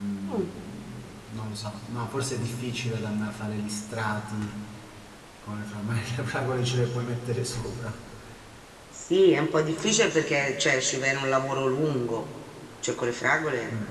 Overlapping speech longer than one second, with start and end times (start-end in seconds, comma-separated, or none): none